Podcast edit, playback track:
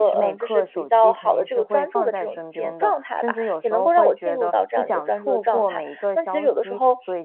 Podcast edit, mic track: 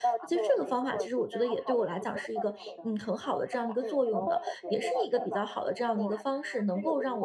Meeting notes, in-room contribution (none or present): present